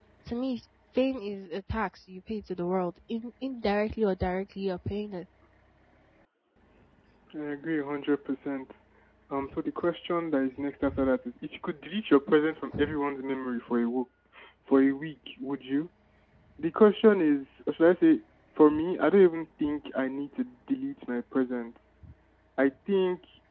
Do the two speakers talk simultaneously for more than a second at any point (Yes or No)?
No